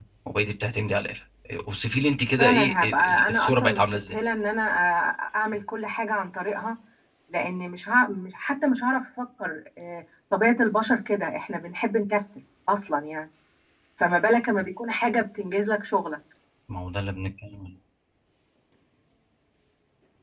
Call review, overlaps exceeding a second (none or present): present